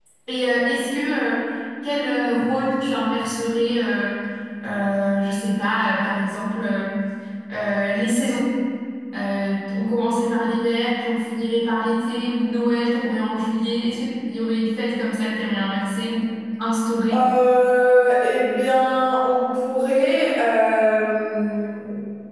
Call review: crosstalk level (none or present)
none